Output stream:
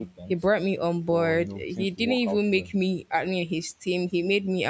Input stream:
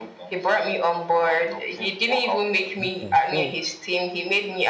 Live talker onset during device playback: 2.8 s

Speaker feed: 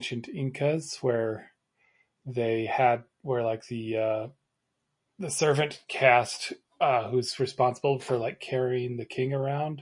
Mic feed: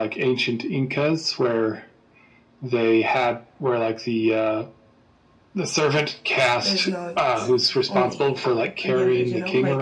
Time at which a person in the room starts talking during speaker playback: 6.6 s

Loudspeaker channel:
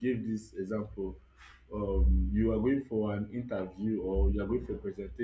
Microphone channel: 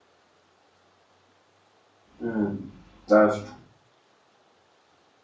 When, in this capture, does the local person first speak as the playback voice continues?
2.2 s

